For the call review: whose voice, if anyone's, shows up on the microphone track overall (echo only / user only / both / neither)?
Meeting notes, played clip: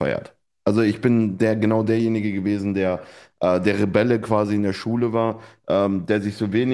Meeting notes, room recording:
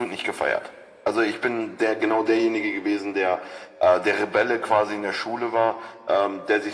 echo only